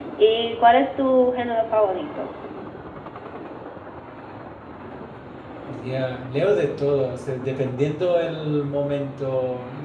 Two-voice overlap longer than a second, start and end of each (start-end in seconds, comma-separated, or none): none